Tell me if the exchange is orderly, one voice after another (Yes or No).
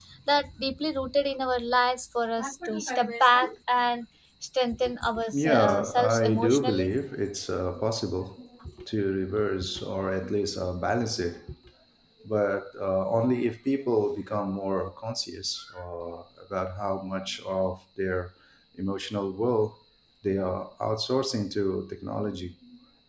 No